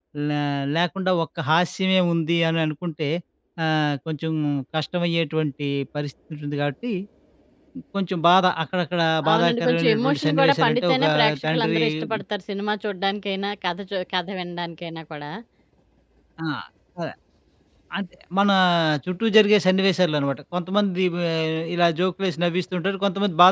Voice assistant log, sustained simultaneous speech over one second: present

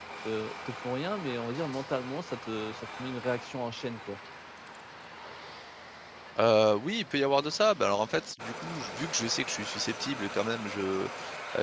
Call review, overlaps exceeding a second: none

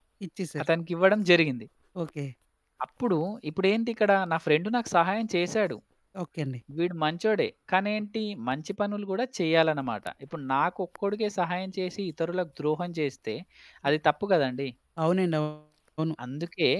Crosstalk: none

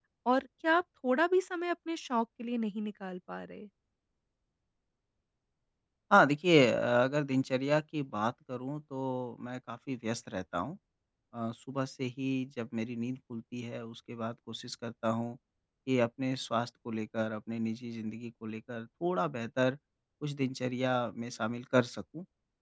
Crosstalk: none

